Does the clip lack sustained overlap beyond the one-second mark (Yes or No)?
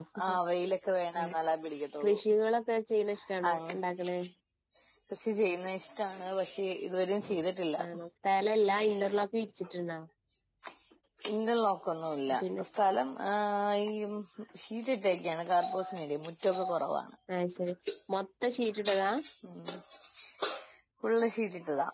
Yes